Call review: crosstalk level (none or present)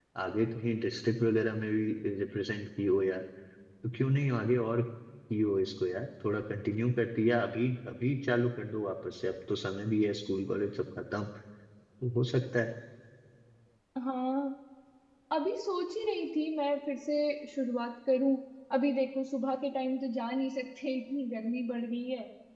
none